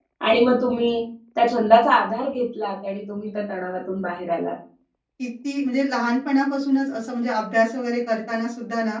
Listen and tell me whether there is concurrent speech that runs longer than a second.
No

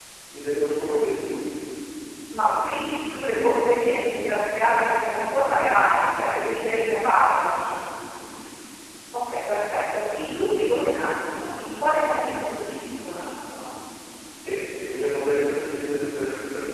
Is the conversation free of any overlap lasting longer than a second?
Yes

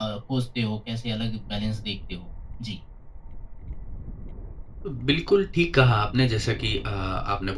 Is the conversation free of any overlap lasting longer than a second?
Yes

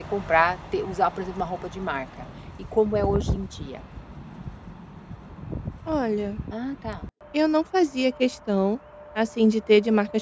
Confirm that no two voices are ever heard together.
Yes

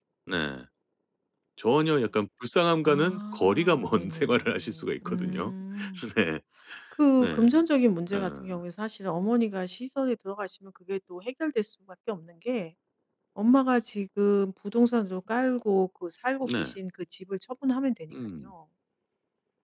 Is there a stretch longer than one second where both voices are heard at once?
Yes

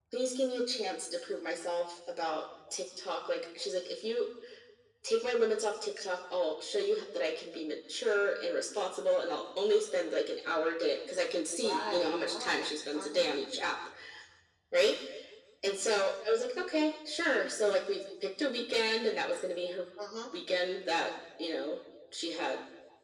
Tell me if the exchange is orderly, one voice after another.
No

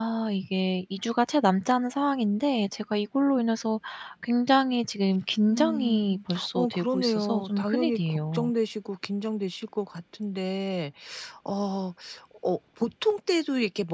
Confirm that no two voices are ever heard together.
No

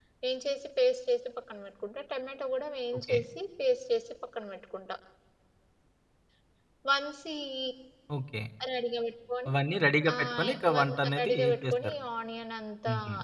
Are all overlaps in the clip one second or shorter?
No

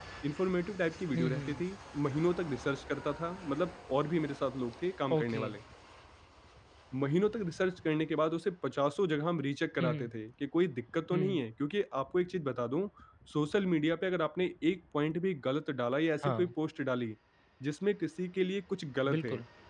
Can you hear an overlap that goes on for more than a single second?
No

